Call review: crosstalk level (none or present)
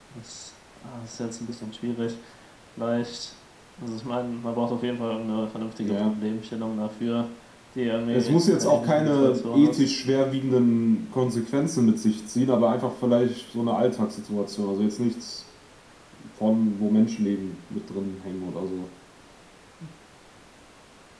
present